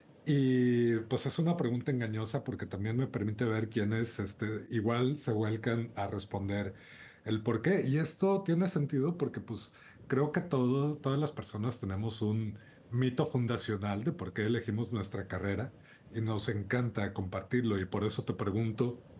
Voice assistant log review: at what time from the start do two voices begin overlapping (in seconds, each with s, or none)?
none